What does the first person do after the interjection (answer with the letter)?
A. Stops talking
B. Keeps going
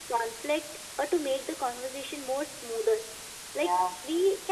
B